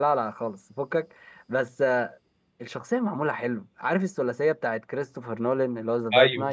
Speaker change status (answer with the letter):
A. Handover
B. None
A